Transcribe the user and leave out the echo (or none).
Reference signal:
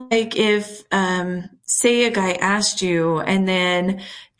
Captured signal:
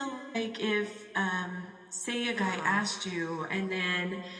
Uh-huh.